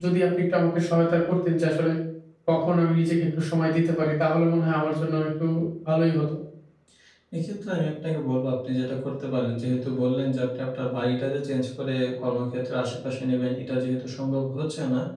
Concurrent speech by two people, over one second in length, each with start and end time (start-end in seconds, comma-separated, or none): none